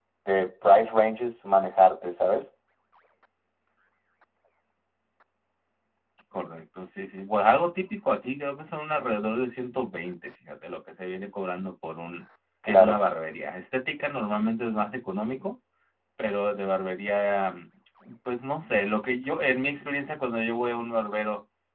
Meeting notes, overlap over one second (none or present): none